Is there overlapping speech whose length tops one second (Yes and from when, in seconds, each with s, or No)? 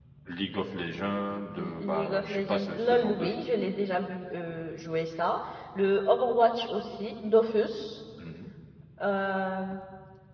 Yes, from 1.6 s